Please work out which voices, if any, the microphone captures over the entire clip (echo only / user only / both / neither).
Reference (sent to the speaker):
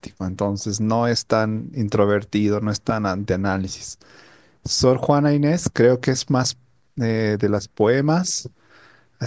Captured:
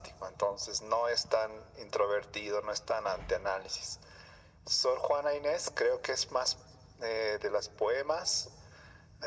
echo only